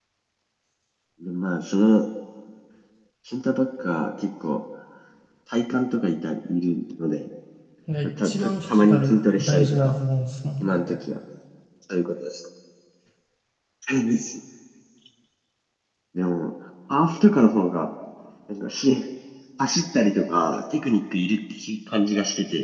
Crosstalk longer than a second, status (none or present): present